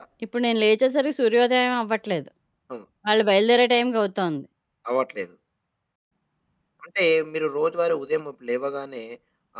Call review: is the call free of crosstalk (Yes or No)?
Yes